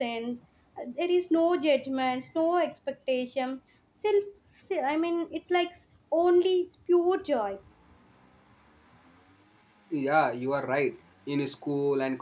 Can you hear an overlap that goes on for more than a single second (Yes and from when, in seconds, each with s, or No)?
No